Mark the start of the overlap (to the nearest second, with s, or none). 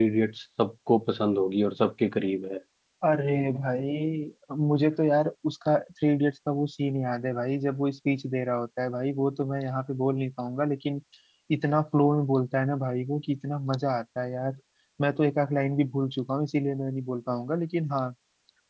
none